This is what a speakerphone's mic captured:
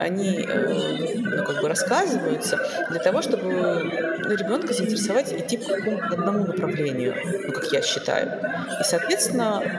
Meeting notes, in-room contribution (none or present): present